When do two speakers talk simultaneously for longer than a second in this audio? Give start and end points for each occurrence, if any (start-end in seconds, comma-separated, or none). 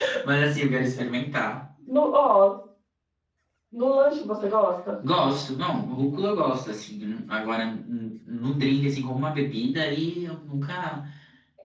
none